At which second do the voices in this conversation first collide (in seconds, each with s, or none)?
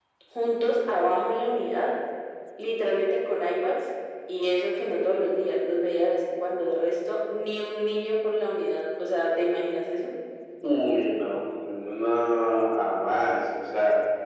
none